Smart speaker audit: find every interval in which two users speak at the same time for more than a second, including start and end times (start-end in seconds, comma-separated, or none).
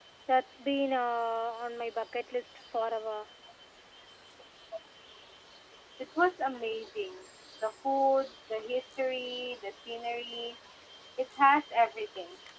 none